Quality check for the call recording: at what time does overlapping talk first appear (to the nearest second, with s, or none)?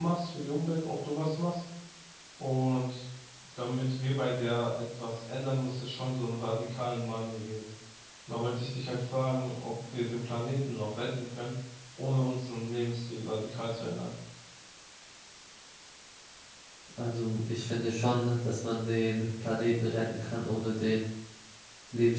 none